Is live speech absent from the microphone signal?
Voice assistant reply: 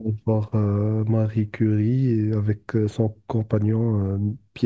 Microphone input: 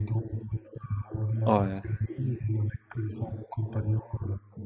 No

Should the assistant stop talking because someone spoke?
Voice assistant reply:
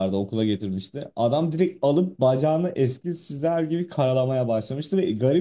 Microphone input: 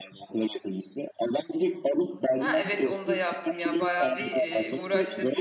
Yes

